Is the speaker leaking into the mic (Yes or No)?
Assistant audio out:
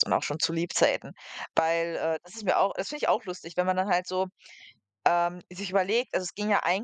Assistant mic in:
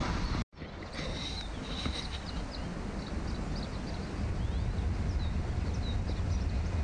No